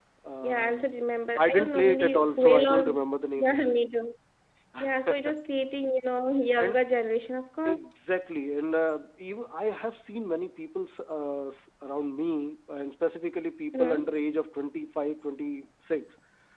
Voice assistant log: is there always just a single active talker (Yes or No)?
No